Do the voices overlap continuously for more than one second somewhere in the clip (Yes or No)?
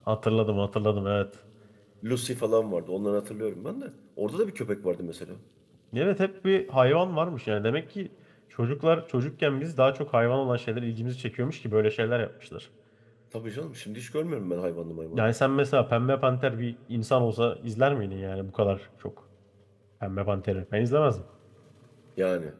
No